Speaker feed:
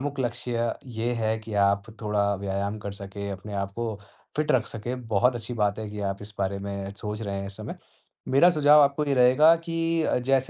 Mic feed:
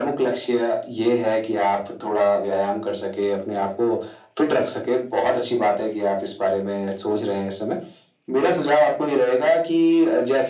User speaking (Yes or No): No